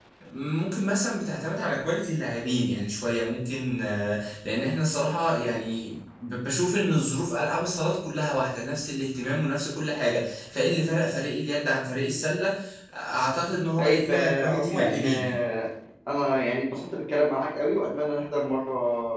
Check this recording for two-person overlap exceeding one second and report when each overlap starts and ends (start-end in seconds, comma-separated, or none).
13.8-15.3